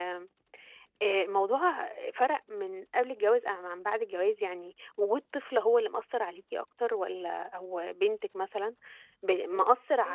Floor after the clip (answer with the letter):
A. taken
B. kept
B